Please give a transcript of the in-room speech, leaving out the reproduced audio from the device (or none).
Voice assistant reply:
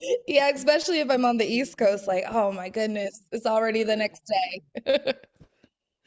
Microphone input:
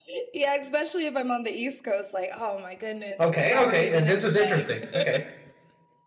Okay, okay, uh, this is interesting. Okay.